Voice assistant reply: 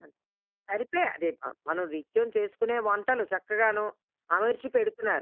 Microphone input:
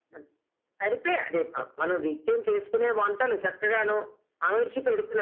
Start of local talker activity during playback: none

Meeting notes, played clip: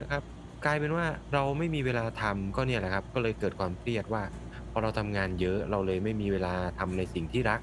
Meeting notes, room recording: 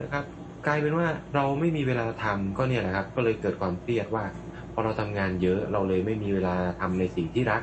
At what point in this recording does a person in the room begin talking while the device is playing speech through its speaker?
none

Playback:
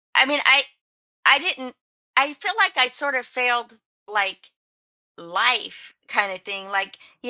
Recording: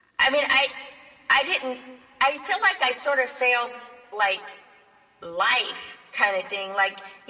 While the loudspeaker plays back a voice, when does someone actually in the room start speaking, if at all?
none

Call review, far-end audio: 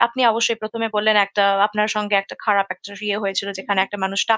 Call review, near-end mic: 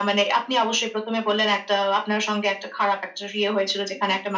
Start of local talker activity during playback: none

